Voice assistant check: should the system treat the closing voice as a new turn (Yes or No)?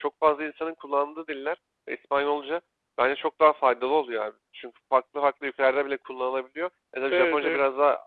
No